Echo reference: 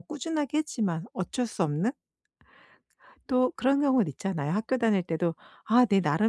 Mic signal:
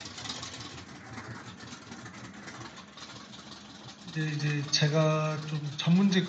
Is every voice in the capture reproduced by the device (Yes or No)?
No